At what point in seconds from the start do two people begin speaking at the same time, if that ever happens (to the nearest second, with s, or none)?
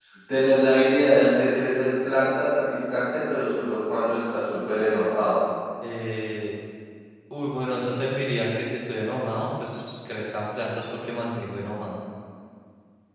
none